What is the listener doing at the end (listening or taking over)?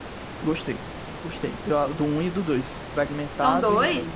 listening